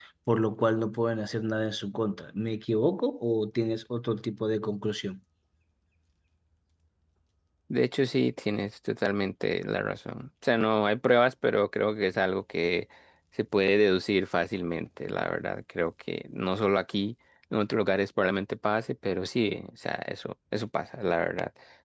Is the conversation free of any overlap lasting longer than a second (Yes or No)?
Yes